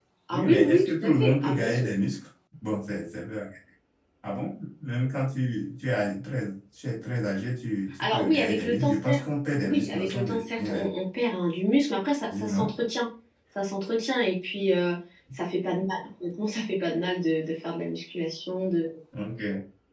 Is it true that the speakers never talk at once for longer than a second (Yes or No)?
No